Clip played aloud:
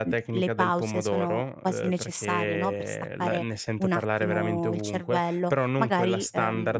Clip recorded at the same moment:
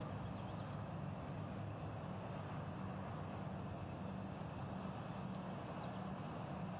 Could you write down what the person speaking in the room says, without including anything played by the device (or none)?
none